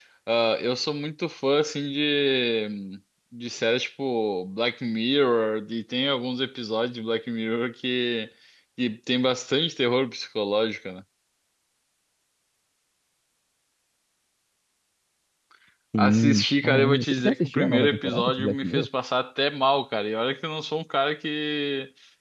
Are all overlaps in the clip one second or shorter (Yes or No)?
No